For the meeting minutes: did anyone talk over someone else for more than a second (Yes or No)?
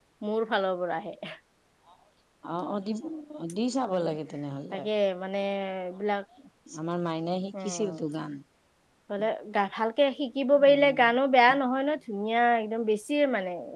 No